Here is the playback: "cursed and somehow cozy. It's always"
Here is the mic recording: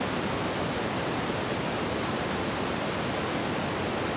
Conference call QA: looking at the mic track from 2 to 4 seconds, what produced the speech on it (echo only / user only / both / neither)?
neither